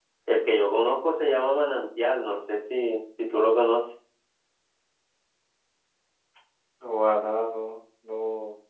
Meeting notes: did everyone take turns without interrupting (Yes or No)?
Yes